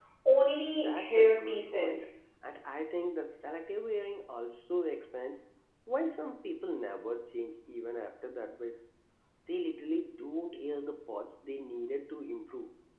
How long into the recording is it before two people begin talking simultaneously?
0.7 s

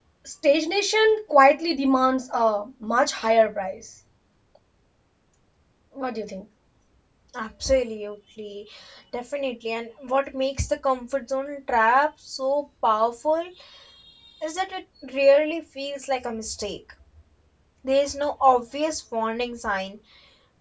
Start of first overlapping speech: none

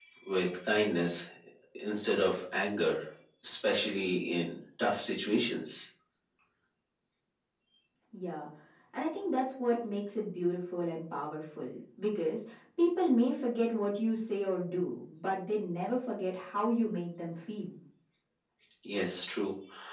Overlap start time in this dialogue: none

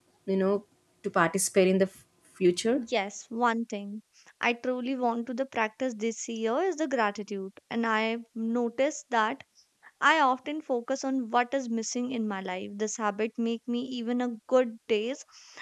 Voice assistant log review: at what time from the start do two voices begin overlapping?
none

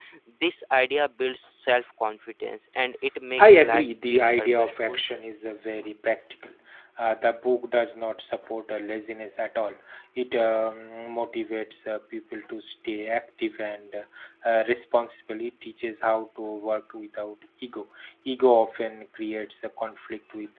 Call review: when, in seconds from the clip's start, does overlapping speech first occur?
3.4 s

